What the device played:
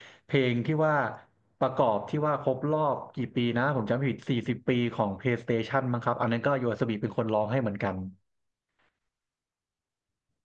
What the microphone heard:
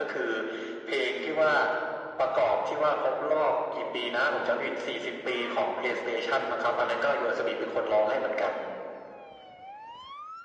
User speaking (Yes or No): Yes